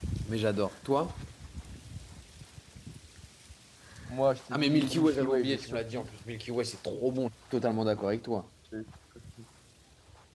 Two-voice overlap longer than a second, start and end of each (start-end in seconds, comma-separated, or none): 4.5-6.1